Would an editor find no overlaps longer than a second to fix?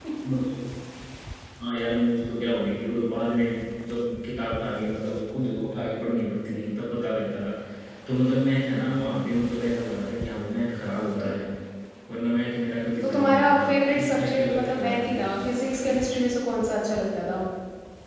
No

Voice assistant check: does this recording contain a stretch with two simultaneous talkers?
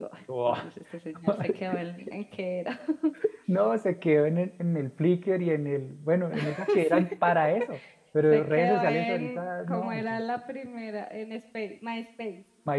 Yes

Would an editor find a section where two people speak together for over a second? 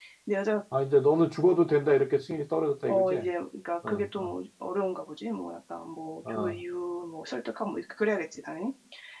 No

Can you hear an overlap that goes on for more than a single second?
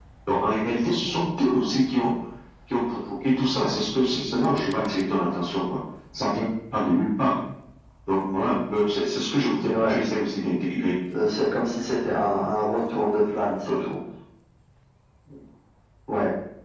No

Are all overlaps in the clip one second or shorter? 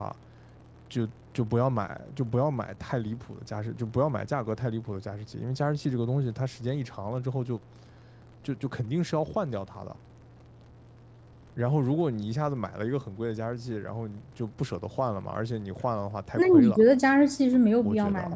Yes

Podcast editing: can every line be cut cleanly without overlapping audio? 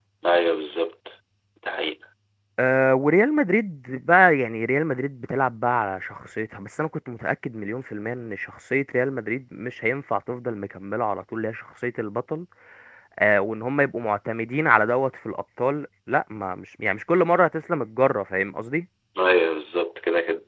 Yes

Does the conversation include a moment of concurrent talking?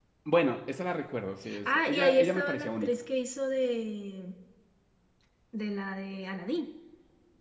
Yes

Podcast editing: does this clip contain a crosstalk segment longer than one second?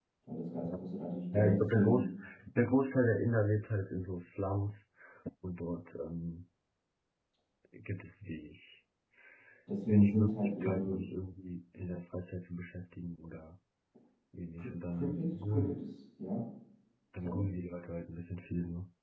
Yes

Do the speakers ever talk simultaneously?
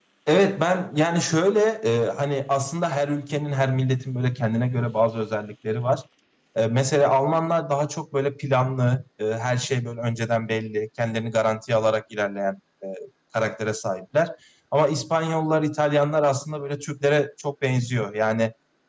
No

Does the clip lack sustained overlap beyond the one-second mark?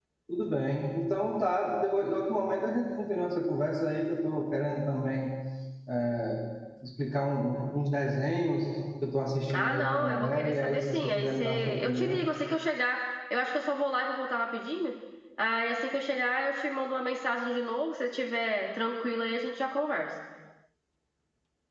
No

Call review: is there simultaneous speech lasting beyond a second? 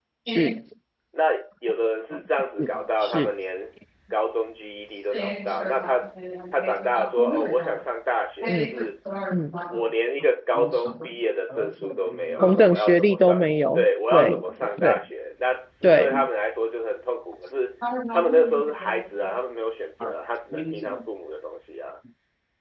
Yes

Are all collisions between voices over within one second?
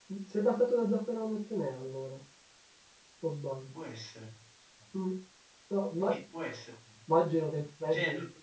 Yes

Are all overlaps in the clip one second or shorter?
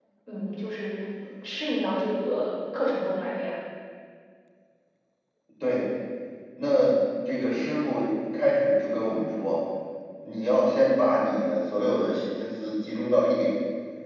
Yes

